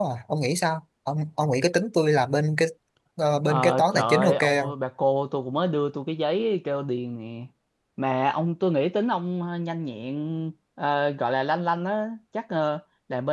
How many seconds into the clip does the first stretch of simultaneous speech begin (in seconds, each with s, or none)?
3.5 s